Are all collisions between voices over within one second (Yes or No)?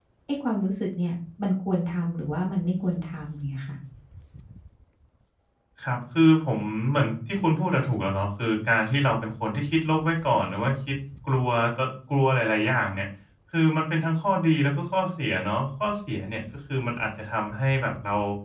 Yes